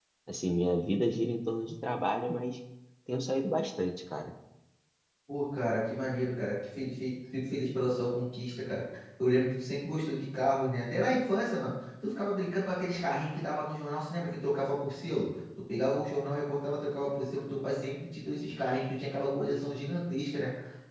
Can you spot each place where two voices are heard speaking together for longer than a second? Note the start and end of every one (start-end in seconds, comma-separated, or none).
none